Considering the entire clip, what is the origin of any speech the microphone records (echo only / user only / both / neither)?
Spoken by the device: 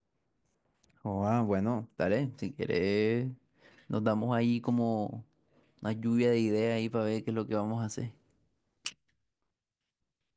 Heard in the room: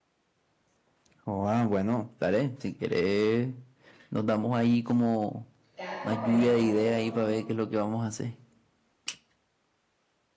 both